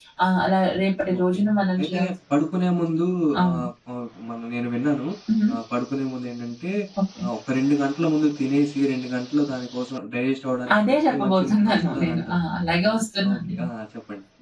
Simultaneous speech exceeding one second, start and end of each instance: 10.8-12.3

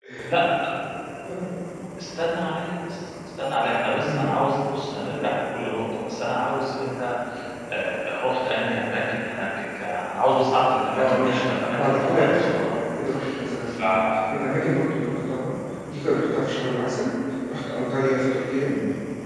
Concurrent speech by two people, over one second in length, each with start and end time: 11.0-12.8

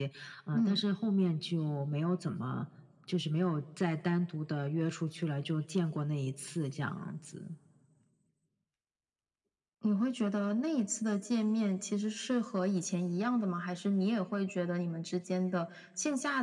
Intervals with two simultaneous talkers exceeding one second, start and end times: none

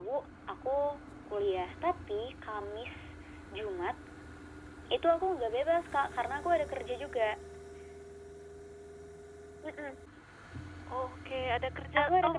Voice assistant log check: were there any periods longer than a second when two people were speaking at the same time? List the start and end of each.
none

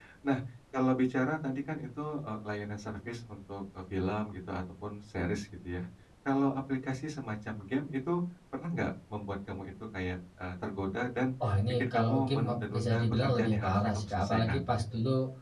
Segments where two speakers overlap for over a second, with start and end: 11.7-14.8

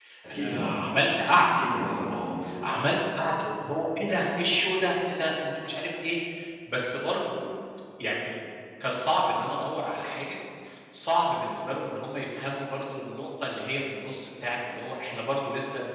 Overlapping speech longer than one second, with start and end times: none

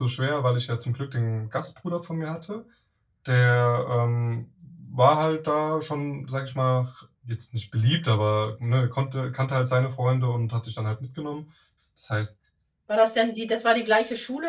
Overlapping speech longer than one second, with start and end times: none

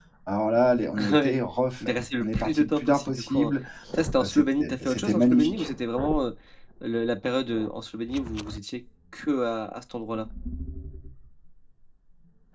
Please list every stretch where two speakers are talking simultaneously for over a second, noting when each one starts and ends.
1.8-3.5, 4.2-5.7

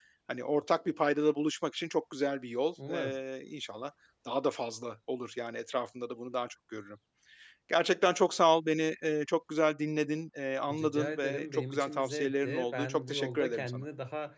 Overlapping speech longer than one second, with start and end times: 10.7-13.8

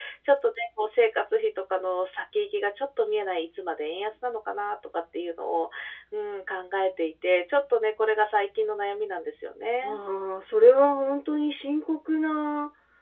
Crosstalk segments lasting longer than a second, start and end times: none

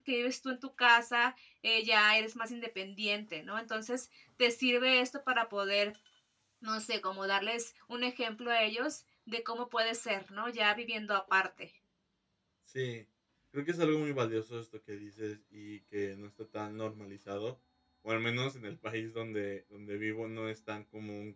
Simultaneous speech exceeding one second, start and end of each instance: none

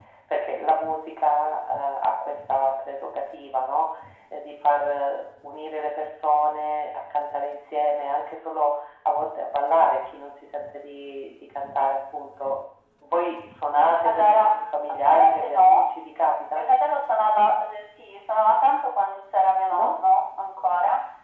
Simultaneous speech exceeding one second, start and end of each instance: 14.1-15.8

